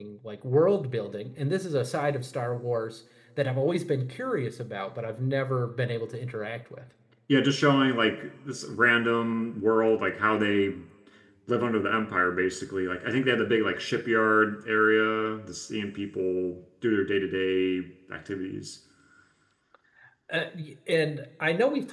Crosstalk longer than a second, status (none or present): none